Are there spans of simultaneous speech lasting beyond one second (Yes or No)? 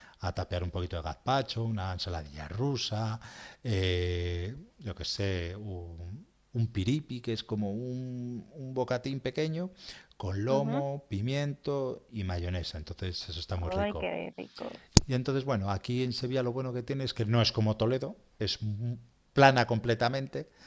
No